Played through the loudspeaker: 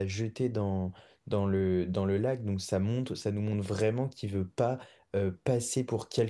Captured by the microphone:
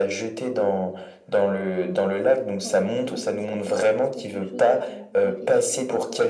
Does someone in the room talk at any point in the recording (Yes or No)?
Yes